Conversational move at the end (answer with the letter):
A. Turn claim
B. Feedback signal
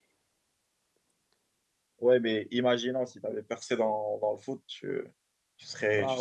B